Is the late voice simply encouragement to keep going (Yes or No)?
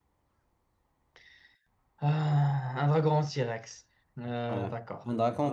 No